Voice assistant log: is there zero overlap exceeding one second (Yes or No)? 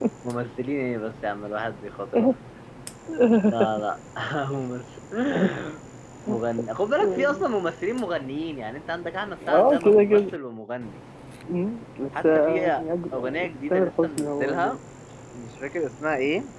No